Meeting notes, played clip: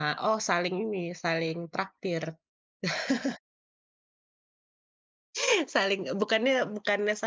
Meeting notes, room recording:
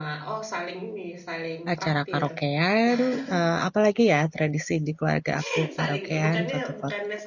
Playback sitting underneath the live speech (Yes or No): Yes